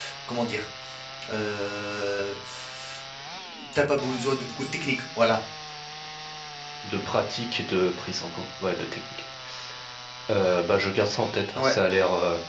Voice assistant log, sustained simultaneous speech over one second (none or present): none